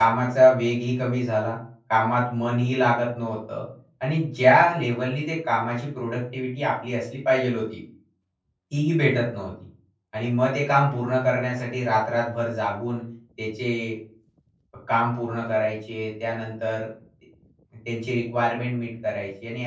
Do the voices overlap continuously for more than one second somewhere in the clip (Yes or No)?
No